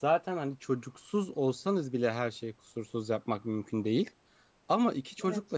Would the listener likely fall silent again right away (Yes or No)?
Yes